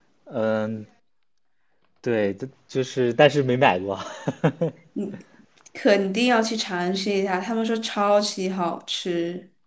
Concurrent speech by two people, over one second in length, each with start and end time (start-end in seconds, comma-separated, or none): none